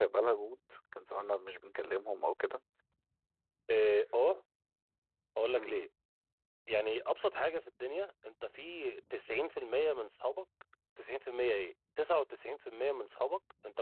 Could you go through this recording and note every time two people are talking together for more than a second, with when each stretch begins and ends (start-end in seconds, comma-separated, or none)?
none